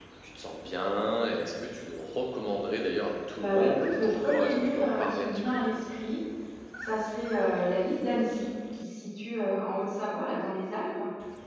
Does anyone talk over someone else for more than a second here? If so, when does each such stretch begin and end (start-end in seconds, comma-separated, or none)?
3.4-5.6